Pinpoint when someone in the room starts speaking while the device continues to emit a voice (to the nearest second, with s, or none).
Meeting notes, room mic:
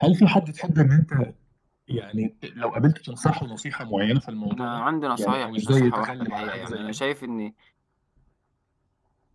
5 s